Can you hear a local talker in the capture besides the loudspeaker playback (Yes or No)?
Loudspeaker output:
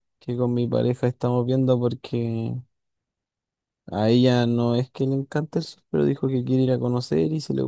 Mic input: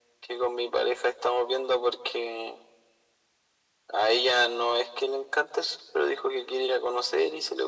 No